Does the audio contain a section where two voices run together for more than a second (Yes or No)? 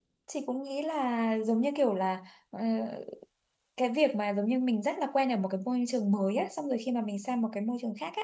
No